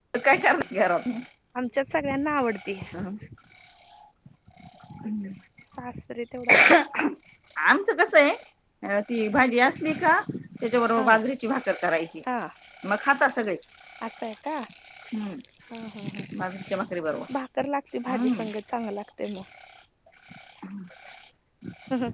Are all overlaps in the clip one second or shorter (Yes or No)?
Yes